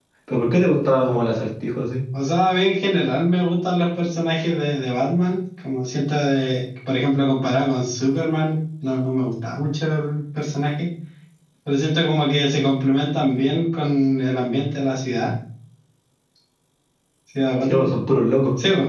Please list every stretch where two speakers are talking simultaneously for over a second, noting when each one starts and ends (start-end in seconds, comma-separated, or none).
none